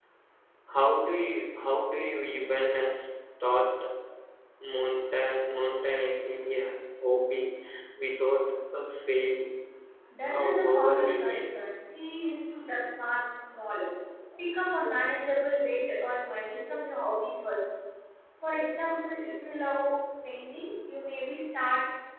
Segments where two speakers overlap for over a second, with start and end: 10.3-11.5

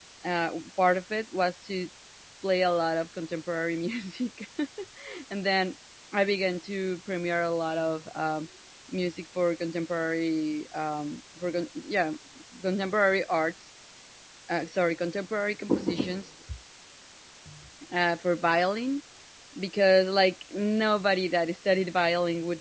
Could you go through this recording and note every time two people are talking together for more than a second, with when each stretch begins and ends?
none

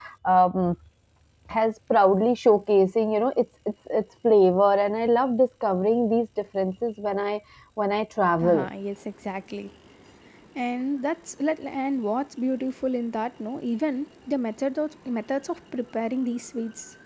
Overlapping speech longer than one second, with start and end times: none

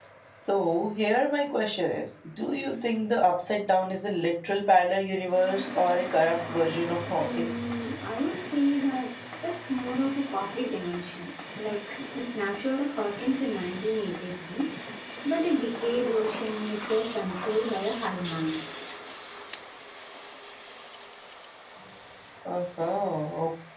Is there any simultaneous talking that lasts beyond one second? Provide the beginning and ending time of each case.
none

